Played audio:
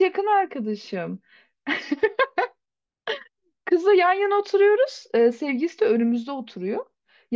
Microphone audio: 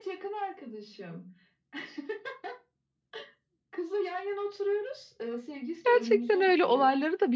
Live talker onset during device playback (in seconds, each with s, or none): 5.8 s